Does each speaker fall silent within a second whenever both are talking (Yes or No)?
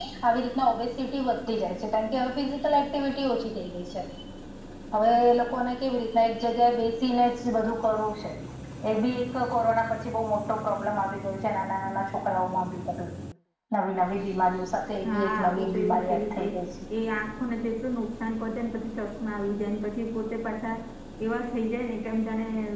No